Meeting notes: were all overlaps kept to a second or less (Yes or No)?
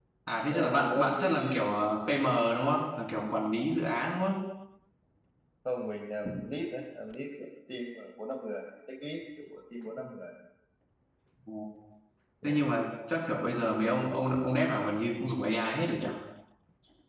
No